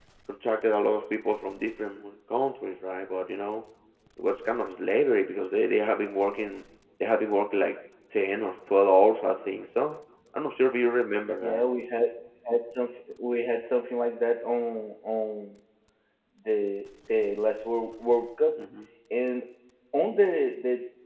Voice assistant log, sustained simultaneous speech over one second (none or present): none